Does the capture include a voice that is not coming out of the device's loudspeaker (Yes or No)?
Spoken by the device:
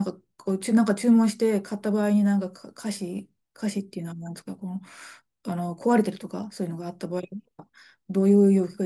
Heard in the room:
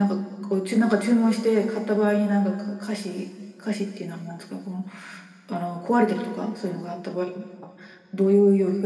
No